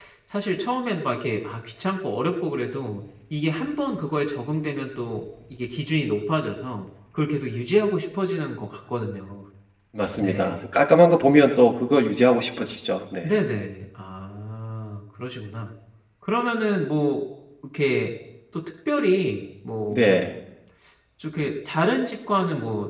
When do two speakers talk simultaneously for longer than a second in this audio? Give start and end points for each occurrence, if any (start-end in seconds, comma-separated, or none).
none